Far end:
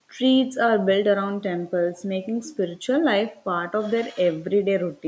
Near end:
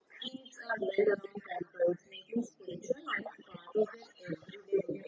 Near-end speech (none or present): none